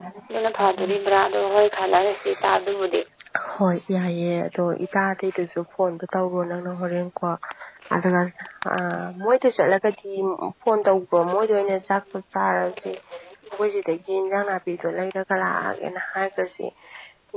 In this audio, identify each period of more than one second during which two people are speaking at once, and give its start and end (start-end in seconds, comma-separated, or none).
none